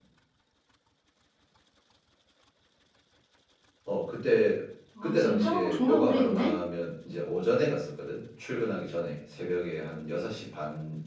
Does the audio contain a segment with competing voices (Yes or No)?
Yes